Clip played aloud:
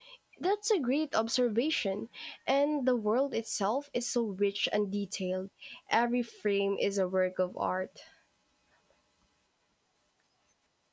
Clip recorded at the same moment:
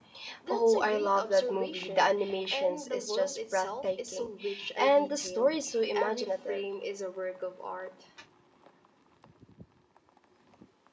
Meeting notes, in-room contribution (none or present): present